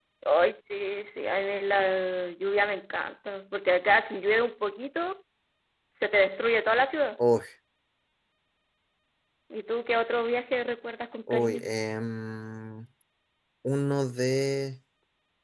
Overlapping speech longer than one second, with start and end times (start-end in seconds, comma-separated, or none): none